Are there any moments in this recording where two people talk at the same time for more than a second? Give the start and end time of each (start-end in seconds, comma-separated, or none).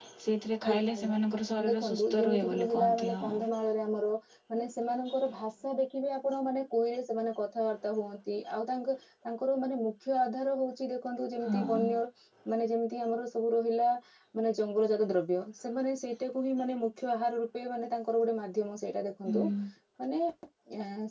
1.7-3.2